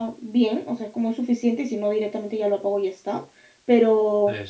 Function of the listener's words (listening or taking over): listening